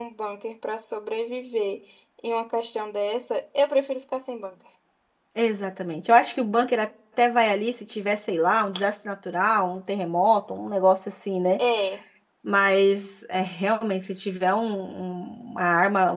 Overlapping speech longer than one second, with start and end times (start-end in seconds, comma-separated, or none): none